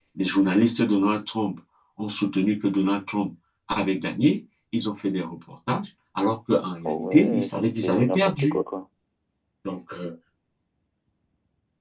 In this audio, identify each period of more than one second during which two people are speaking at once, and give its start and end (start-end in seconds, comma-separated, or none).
6.8-8.6